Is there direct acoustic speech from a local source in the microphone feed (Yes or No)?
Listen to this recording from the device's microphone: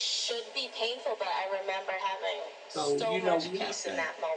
Yes